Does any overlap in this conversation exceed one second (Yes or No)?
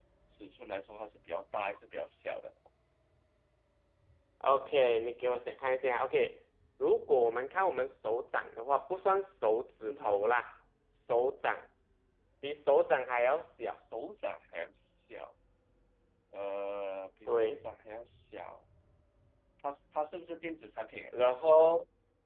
No